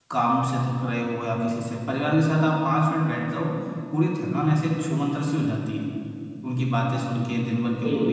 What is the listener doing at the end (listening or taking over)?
listening